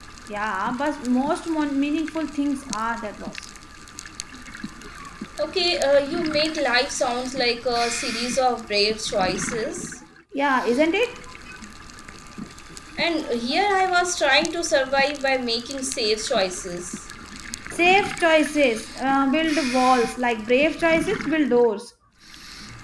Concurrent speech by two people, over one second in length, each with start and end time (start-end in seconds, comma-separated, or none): none